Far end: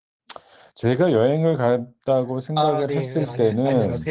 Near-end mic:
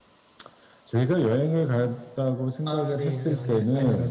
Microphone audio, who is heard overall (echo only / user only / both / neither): echo only